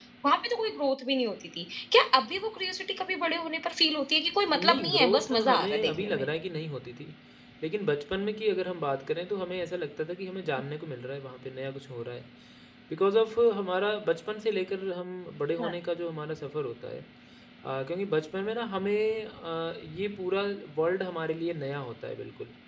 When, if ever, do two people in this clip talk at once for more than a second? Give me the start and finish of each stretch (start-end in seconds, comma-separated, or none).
4.5-6.2